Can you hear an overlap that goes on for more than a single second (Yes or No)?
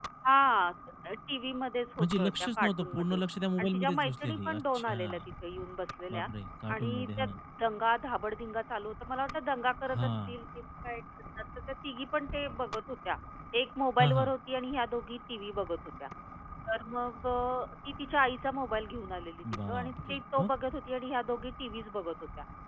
Yes